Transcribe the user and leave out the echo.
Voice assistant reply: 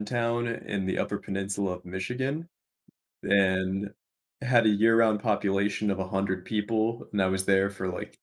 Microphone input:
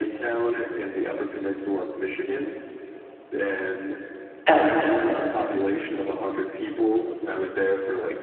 Okay.

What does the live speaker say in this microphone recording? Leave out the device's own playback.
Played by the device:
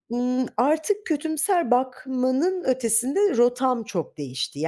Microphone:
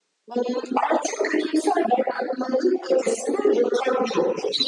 none

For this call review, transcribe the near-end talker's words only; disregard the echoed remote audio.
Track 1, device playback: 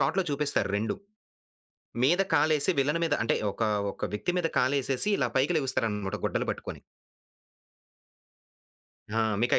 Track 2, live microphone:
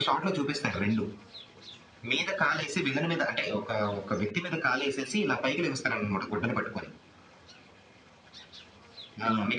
none

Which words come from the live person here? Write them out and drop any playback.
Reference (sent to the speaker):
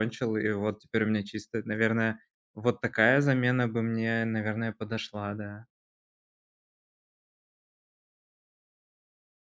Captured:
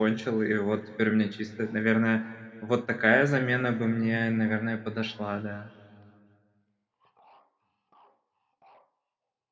none

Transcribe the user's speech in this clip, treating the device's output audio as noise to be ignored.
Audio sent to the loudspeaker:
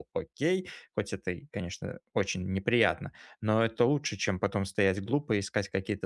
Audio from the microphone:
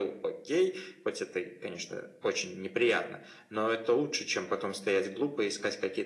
none

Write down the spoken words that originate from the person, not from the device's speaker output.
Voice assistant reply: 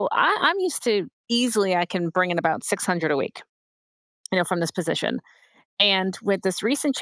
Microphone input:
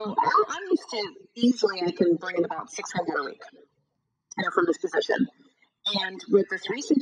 none

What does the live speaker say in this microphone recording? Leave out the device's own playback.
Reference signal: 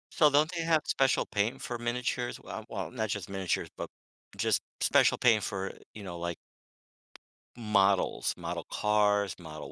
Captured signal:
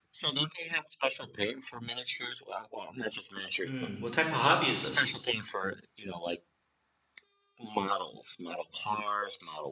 Hmm. what type of hobby is this?

